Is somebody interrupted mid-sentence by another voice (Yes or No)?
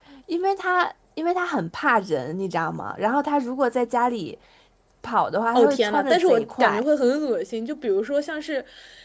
Yes